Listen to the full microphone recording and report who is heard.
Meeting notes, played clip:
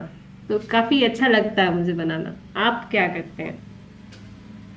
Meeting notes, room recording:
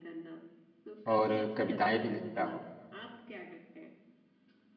both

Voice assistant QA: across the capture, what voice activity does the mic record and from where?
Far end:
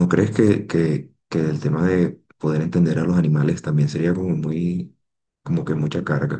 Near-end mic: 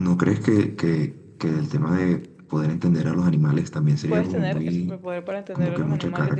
both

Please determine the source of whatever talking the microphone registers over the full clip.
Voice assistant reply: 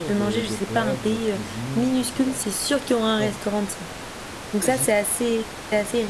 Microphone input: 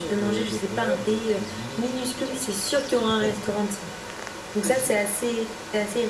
echo only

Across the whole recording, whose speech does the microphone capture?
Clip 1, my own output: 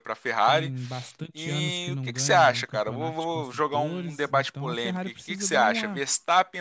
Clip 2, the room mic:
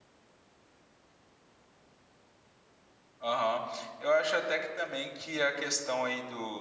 user only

